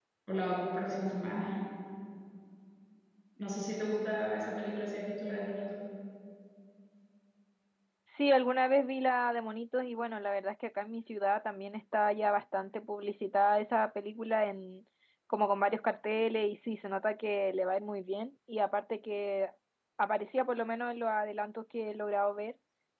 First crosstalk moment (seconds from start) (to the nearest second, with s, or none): none